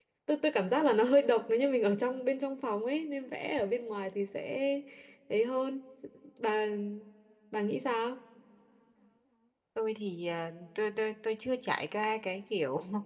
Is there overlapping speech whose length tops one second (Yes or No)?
No